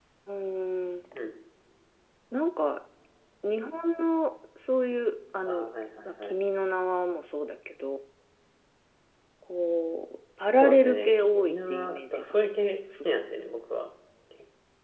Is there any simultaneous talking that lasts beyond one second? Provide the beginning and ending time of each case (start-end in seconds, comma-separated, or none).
10.6-12.2